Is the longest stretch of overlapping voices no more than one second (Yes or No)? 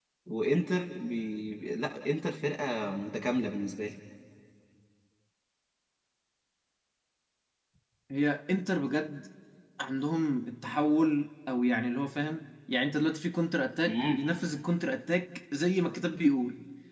Yes